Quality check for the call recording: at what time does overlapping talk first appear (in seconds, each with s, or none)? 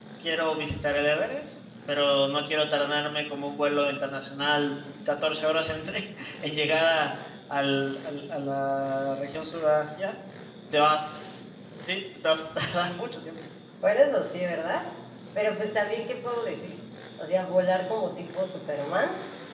none